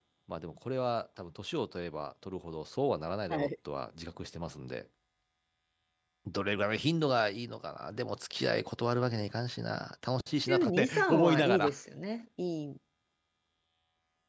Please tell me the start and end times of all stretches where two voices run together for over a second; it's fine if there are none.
10.5-11.7

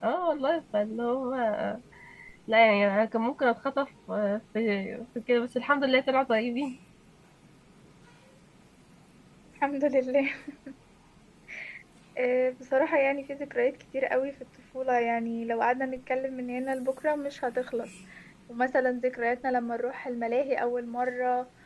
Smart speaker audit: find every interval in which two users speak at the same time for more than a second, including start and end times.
none

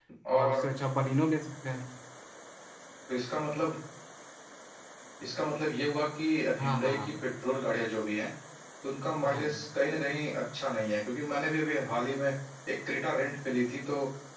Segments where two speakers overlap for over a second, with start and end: none

